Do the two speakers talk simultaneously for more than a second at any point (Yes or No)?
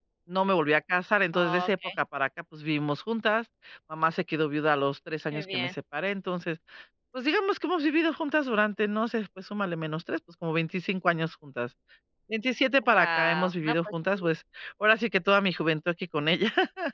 Yes